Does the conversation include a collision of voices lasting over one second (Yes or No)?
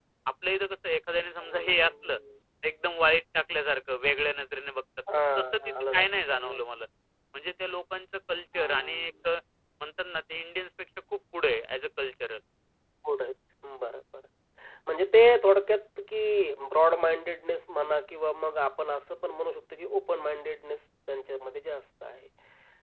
Yes